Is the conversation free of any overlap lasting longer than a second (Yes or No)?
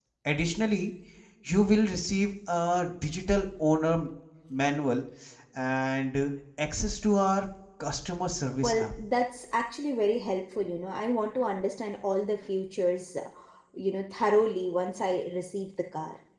Yes